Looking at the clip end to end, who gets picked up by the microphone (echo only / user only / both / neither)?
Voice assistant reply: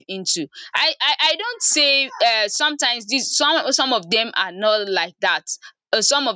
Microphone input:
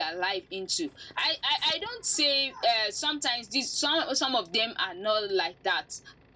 echo only